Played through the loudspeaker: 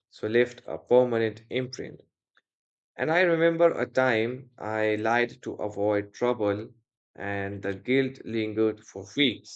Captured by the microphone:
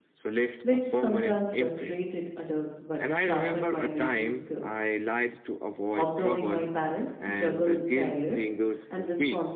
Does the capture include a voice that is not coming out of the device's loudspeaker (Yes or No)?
Yes